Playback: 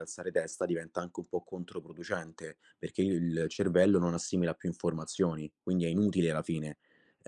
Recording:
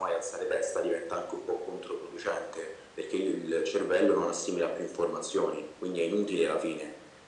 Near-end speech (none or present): none